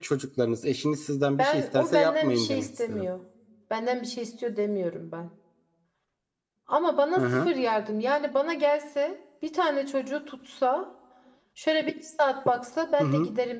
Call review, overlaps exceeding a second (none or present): present